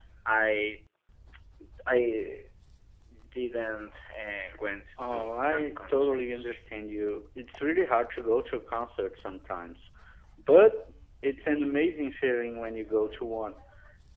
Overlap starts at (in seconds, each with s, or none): 5.1 s